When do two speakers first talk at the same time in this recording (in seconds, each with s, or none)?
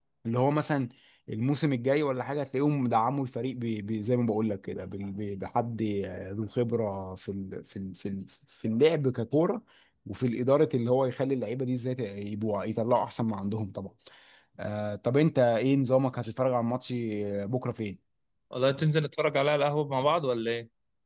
none